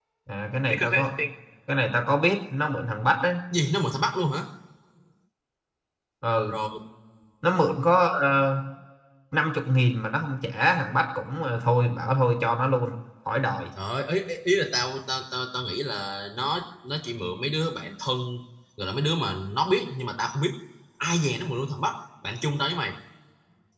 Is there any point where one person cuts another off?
No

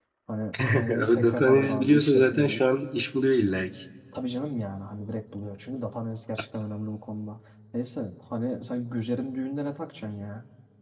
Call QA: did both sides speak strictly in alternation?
No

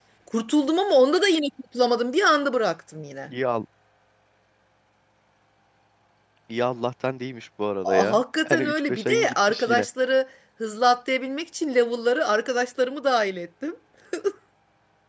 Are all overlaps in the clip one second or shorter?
No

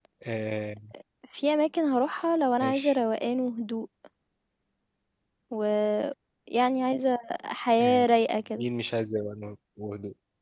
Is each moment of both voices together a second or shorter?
Yes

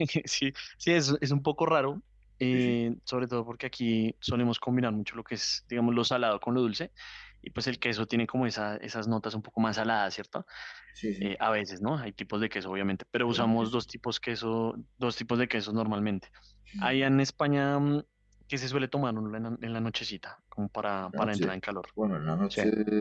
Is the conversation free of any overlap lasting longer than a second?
Yes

